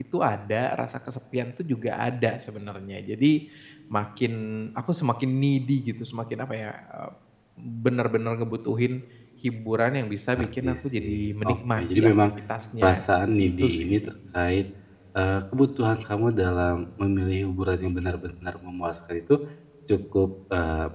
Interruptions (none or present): present